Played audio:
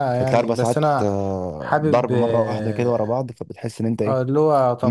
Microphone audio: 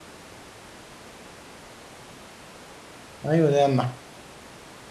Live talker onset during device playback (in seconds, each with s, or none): 3.3 s